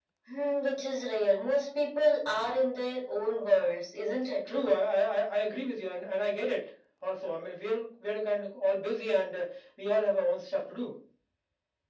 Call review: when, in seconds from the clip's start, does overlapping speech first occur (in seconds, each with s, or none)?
none